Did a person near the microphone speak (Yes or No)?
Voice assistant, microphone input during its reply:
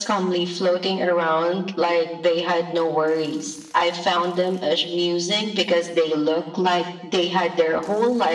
No